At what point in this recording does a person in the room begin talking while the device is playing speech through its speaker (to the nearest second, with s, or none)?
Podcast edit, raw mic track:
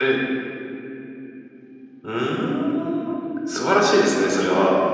none